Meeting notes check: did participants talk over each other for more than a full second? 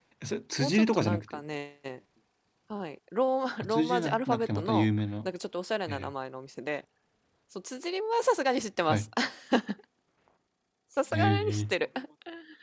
Yes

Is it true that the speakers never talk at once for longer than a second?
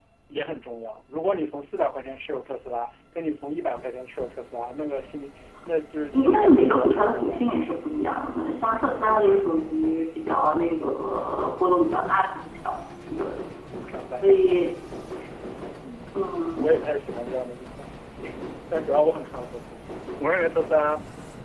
No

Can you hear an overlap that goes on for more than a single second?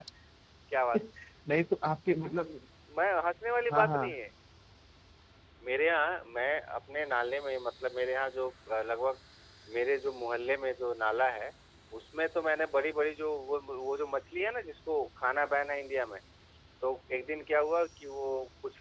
No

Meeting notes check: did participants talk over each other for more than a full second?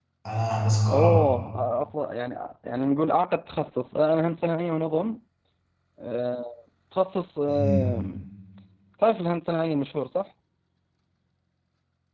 No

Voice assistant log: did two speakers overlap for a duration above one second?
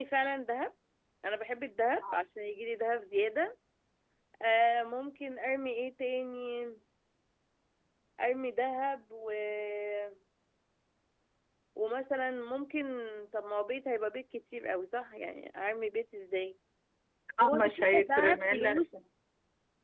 Yes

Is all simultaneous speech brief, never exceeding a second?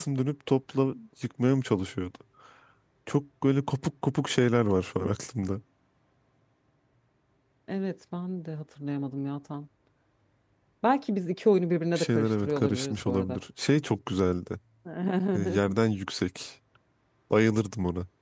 No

